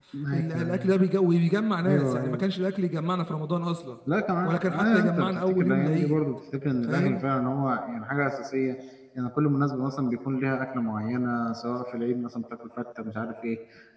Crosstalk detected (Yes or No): Yes